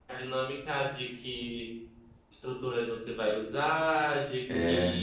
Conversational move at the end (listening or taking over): listening